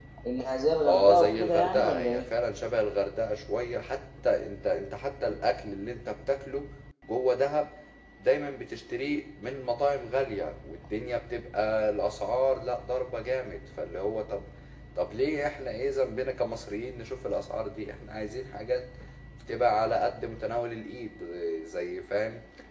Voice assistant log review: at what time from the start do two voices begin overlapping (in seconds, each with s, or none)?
0.8 s